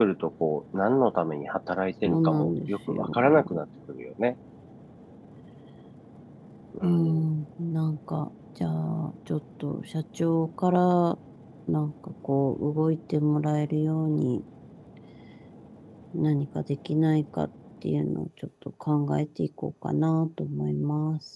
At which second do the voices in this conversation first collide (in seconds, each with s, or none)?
2.0 s